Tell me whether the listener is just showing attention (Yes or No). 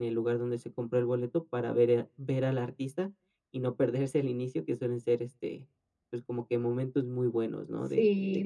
No